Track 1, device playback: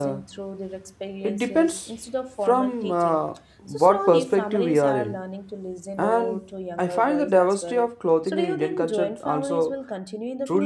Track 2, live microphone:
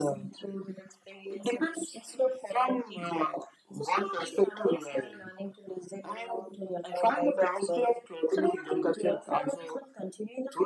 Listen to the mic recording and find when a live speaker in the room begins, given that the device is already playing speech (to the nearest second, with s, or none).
none